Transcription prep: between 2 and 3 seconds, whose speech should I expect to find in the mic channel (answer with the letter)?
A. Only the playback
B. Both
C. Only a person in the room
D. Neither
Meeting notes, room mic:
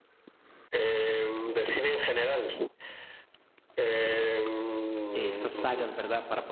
A